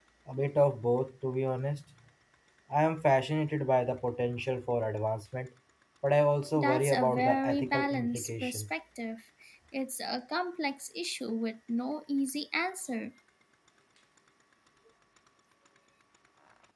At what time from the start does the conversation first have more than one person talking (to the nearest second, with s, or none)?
7 s